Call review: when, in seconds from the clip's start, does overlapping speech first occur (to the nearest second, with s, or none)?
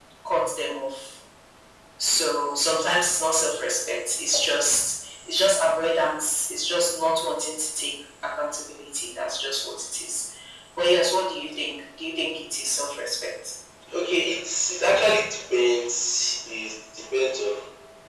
none